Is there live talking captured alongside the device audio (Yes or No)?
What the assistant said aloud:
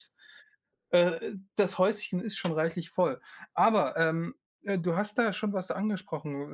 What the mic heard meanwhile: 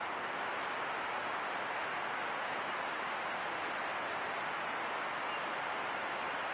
No